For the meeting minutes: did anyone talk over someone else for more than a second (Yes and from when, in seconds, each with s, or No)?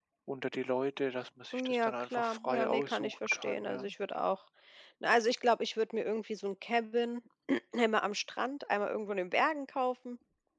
Yes, from 1.5 s